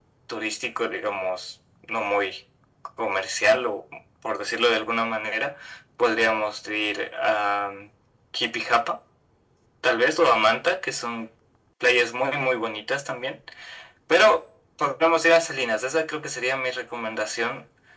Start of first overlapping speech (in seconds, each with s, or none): none